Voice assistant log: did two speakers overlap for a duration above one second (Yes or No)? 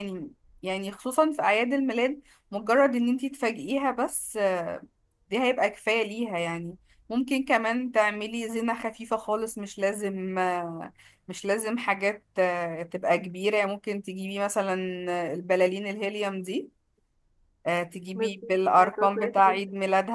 Yes